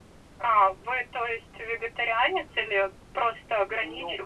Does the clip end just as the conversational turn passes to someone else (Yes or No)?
Yes